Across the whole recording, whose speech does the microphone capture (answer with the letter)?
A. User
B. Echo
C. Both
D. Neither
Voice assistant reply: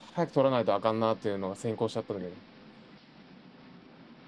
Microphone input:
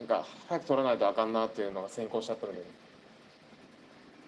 B